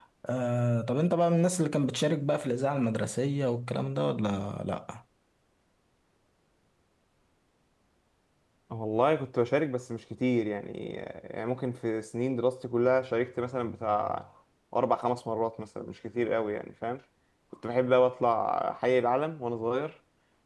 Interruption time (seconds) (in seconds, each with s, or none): none